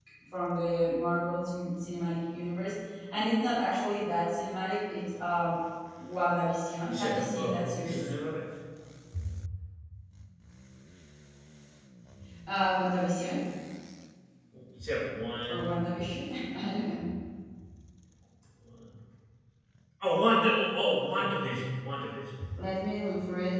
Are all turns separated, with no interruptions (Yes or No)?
No